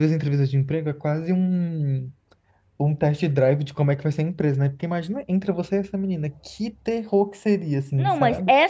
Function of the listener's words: taking over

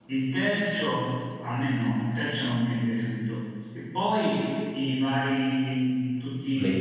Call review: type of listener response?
listening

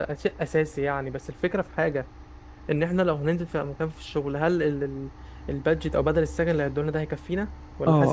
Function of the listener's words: taking over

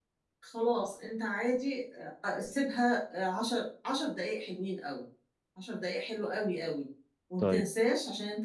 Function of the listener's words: listening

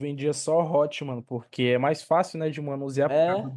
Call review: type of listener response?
listening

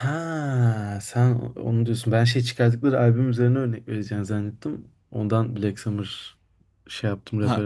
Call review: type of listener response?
taking over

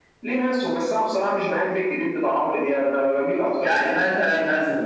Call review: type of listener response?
taking over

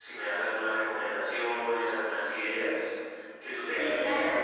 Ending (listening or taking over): taking over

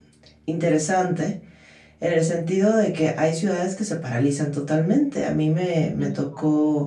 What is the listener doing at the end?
listening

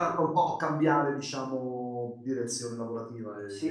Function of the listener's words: taking over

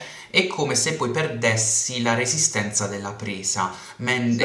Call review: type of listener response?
listening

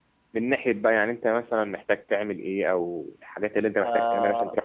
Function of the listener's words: taking over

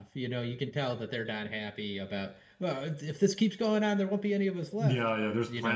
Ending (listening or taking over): taking over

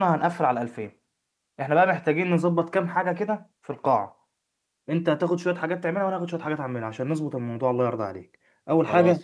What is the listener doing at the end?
listening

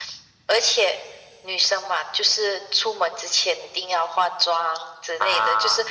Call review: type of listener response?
listening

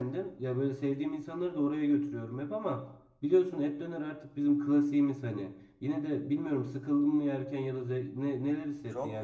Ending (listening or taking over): taking over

